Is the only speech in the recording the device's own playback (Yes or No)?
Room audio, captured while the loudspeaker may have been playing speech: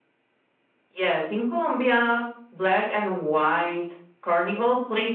No